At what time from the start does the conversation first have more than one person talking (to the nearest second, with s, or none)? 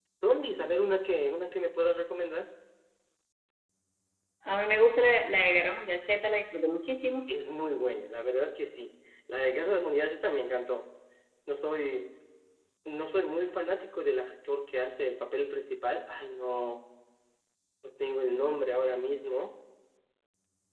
none